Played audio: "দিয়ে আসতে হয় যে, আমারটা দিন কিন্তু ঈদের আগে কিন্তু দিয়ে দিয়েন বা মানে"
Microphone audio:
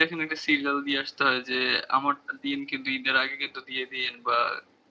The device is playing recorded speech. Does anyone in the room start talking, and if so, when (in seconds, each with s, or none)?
none